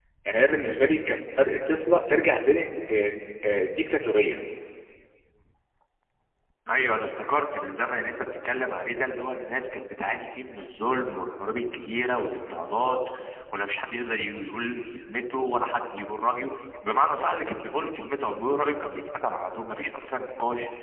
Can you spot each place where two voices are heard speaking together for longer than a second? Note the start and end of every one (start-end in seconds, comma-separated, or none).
none